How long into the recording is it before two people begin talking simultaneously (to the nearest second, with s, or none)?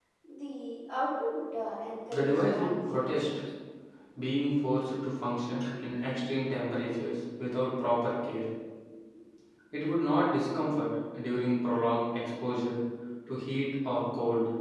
2 s